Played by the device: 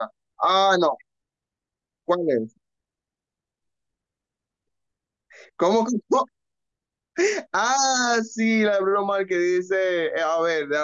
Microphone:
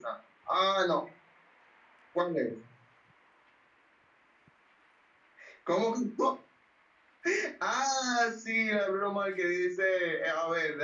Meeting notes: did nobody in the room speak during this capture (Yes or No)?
Yes